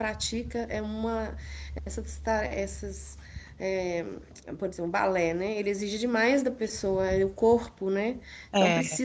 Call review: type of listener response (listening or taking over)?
listening